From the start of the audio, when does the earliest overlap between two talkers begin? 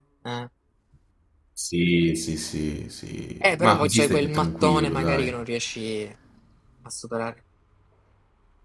3 s

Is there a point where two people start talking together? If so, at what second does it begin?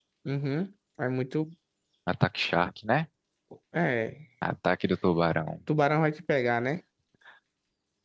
none

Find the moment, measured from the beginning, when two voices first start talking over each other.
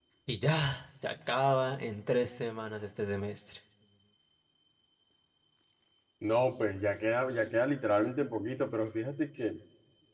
none

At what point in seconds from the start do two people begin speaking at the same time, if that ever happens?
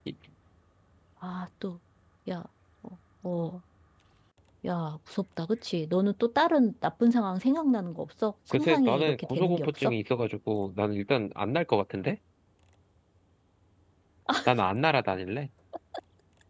9 s

